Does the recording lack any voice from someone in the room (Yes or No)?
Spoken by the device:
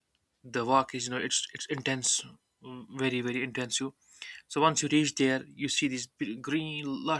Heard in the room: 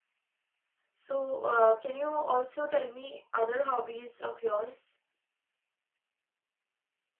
No